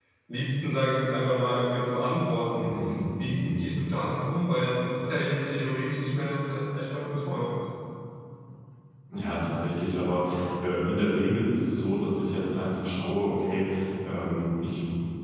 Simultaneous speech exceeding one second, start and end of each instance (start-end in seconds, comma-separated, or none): none